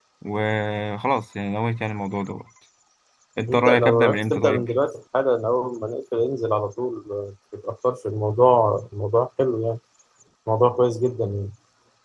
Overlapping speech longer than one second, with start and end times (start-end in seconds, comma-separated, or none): 3.5-4.7